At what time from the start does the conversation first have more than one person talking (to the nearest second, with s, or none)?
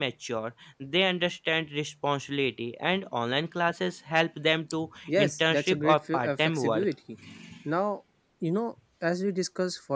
5 s